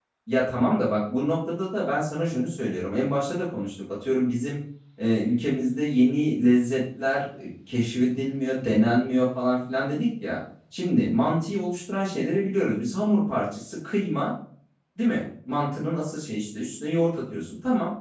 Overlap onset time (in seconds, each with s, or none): none